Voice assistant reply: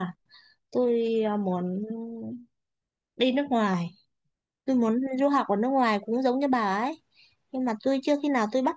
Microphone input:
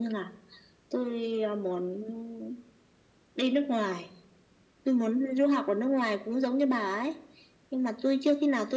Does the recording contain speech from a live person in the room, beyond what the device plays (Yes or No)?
No